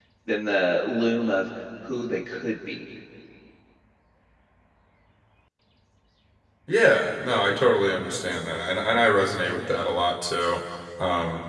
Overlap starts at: none

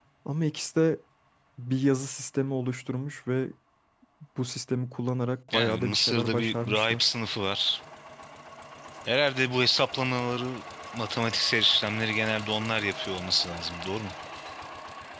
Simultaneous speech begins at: 5.5 s

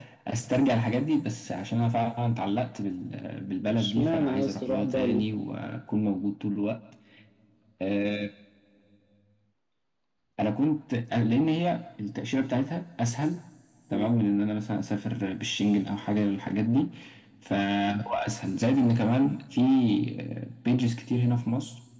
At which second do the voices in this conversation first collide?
3.7 s

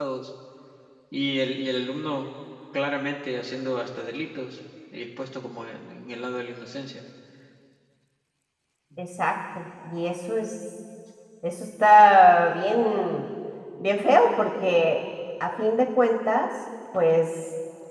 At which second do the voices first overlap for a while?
none

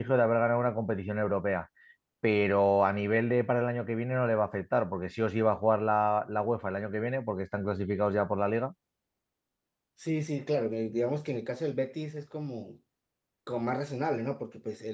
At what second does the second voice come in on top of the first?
none

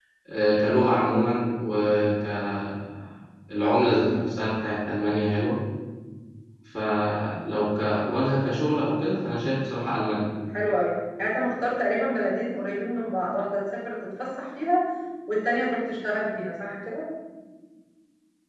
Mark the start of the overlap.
none

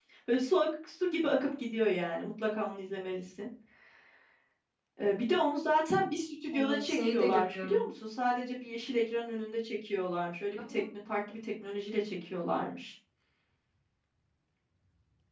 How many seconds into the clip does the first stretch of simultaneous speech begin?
6.5 s

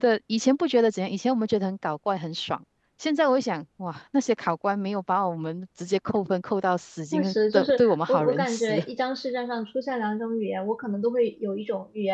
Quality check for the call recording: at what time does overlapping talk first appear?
7.1 s

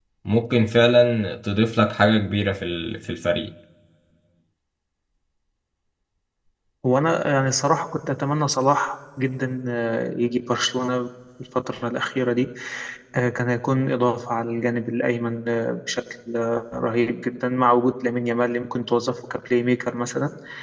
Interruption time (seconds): none

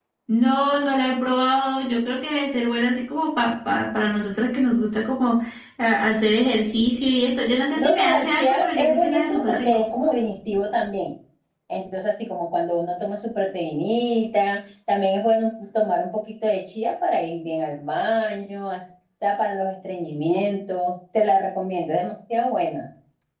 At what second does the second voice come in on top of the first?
7.8 s

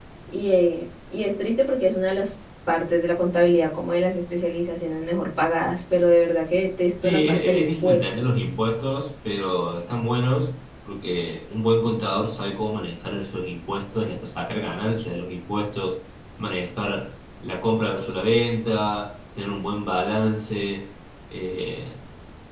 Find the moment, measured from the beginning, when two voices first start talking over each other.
7.0 s

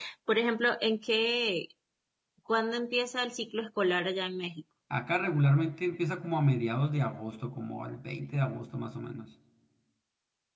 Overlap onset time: none

